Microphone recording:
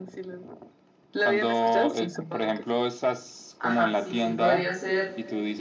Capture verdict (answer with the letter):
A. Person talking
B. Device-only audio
A